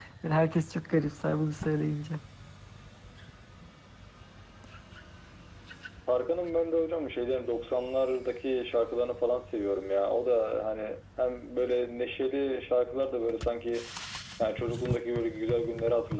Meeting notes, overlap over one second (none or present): none